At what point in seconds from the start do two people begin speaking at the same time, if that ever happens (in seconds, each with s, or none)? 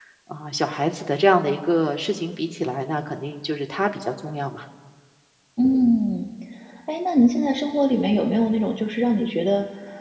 none